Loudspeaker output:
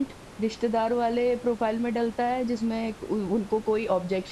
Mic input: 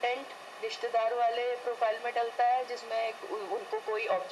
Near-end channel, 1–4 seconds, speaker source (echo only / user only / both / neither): echo only